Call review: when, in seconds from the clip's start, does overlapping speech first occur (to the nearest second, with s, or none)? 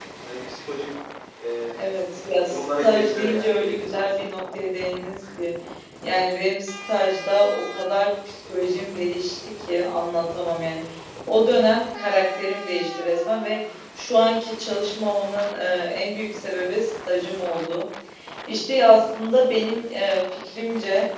2 s